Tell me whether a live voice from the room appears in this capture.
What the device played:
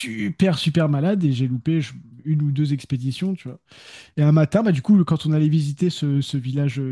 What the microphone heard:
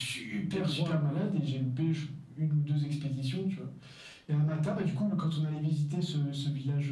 Yes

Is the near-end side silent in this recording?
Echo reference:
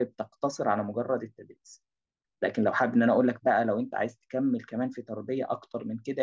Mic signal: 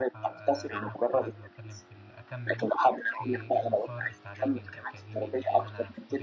No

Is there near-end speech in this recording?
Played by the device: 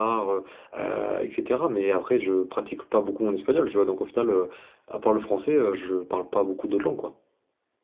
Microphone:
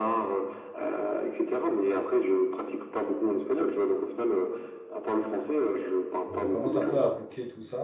Yes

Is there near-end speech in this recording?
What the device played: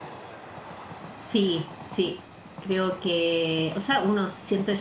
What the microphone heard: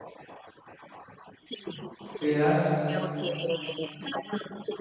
Yes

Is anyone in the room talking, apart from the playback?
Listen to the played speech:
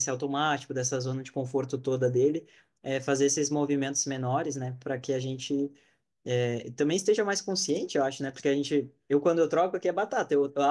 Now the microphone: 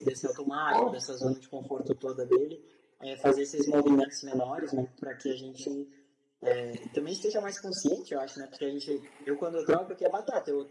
Yes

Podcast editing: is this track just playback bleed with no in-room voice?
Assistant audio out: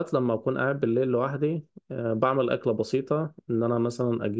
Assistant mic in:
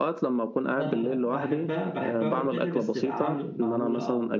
No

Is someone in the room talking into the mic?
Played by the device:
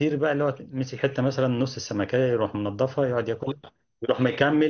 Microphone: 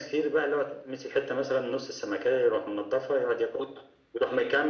No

